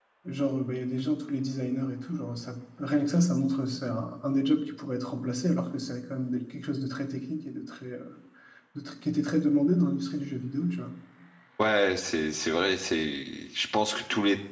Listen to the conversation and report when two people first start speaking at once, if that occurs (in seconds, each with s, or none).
none